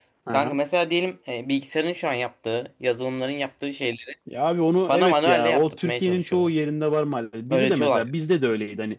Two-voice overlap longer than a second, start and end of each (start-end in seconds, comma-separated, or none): 4.9-6.6